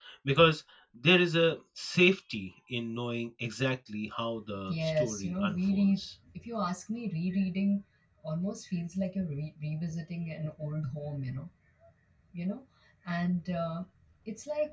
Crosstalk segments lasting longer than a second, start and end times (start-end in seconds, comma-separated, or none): 4.7-6.1